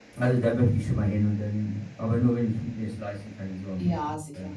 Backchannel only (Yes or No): No